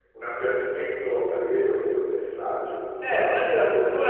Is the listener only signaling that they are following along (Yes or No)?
No